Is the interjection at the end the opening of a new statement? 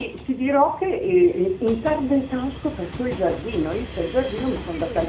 No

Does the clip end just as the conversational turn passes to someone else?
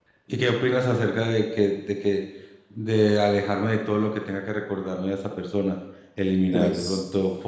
No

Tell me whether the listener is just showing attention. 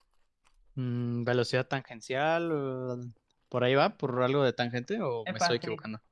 No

